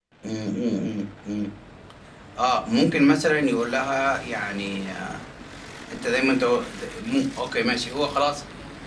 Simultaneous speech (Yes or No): No